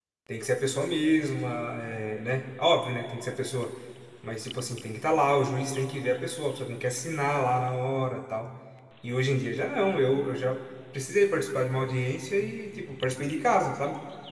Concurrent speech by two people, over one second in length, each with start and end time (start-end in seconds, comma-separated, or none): none